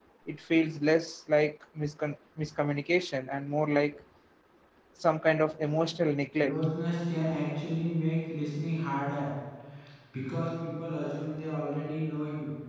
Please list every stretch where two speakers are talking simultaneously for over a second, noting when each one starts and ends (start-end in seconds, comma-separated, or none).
none